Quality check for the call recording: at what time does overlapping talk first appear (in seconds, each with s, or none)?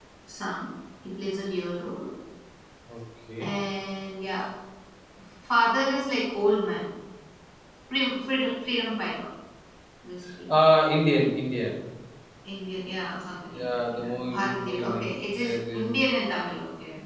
13.5 s